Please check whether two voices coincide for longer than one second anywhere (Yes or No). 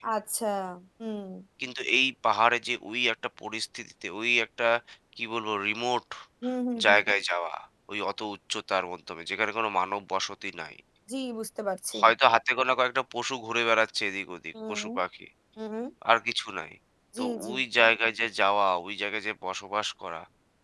No